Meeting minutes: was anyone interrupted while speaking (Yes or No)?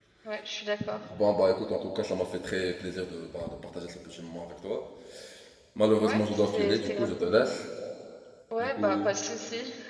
Yes